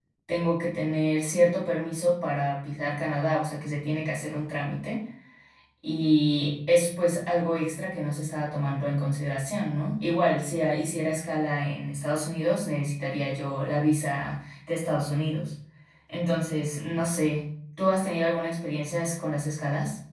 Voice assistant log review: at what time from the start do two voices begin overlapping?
none

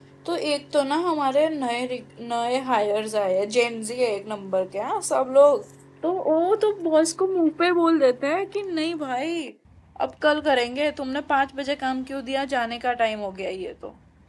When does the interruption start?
none

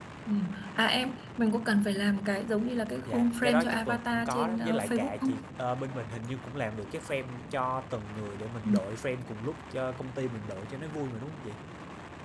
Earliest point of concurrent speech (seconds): 3.0 s

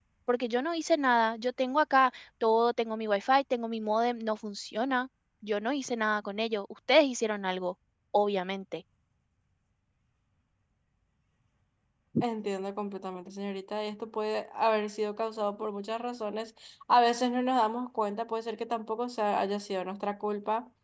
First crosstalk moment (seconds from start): none

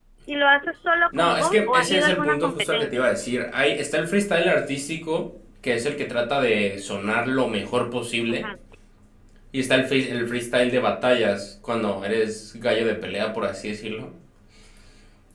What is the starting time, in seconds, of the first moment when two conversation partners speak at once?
1.1 s

